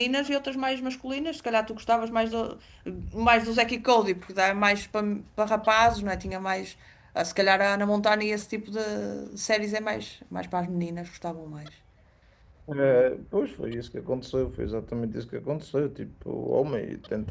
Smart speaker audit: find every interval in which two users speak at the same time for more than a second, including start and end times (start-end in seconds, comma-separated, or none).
none